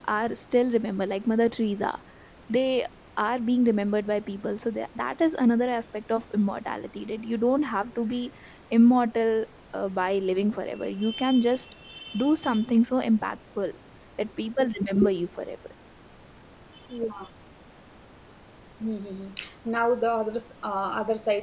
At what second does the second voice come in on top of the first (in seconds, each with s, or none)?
none